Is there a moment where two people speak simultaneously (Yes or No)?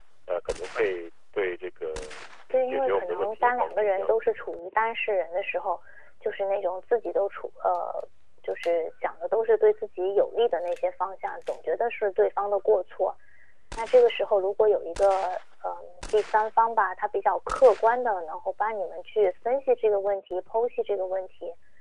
Yes